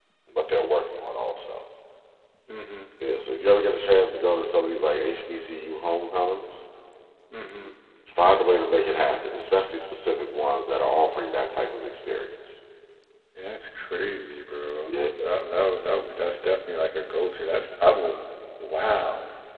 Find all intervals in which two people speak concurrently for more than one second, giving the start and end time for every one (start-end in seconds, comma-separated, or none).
none